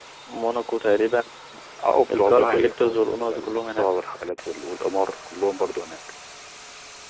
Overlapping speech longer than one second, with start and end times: 2.1-3.9

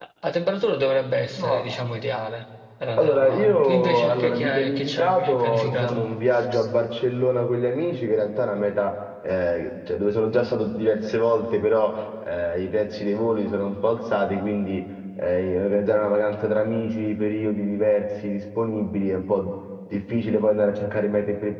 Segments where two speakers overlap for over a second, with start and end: 3.0-6.0

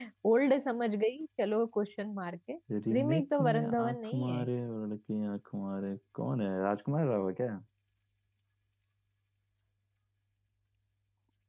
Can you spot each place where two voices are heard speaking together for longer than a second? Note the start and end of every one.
2.9-4.4

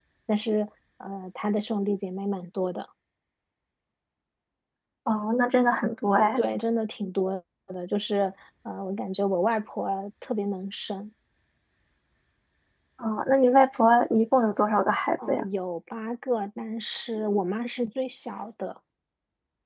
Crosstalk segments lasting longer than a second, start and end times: none

